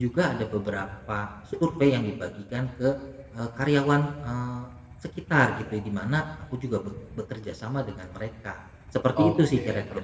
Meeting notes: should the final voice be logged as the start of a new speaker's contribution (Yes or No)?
Yes